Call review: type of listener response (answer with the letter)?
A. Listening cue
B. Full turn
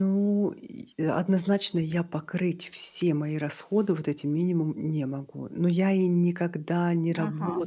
A